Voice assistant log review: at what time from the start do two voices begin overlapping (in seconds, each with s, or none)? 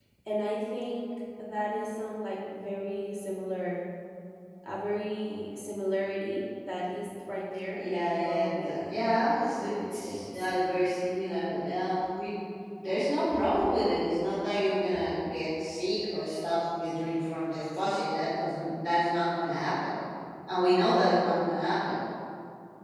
7.8 s